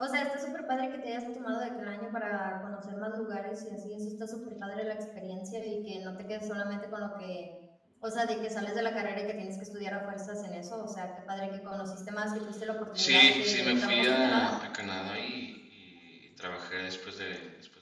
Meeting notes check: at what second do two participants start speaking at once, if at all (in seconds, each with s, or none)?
13.0 s